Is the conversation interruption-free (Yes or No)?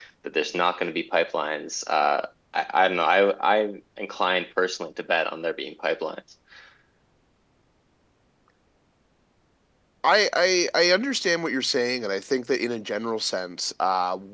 Yes